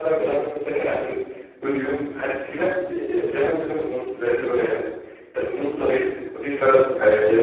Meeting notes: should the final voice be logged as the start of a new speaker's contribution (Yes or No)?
No